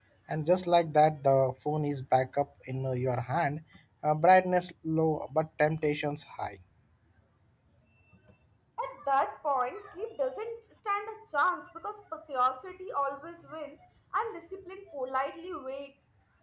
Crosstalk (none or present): none